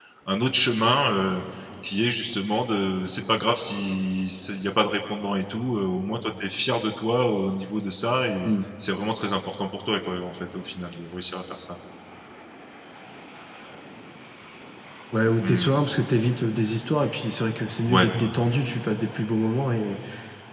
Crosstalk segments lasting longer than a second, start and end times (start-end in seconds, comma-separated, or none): none